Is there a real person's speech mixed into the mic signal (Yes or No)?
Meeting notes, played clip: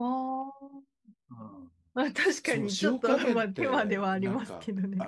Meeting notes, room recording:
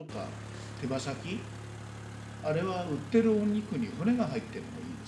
Yes